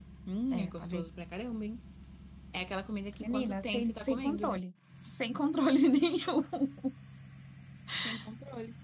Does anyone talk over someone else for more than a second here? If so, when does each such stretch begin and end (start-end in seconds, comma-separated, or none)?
3.2-4.6